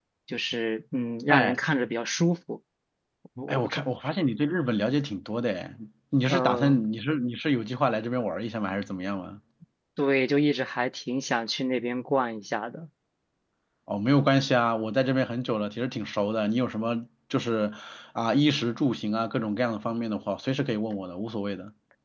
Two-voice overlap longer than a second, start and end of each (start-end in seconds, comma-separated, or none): none